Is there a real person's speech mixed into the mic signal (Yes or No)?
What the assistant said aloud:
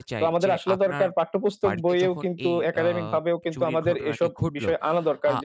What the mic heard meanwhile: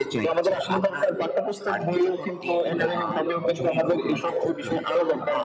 No